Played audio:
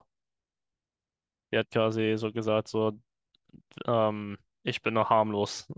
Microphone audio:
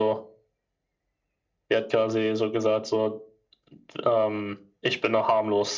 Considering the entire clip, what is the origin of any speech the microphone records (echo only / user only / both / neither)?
echo only